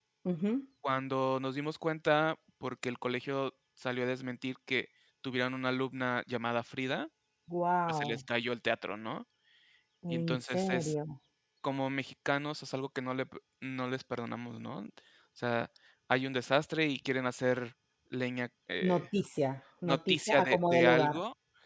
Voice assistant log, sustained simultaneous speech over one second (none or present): present